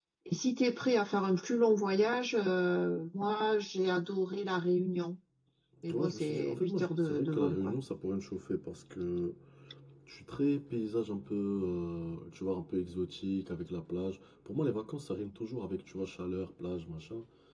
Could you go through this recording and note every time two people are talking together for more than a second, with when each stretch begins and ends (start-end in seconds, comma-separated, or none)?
5.9-7.8